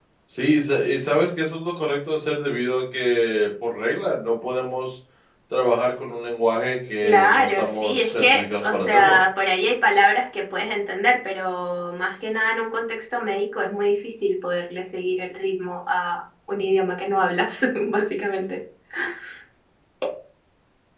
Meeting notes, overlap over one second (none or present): present